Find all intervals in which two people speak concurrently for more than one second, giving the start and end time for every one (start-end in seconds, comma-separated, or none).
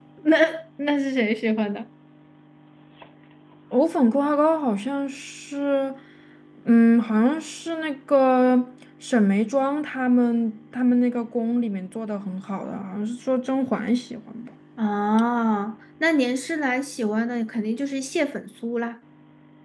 none